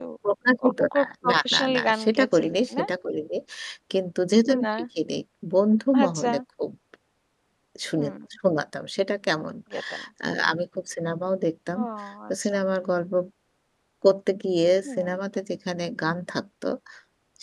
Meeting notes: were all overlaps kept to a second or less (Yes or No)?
No